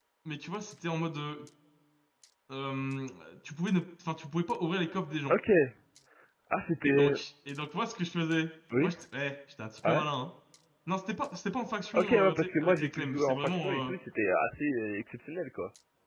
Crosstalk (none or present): present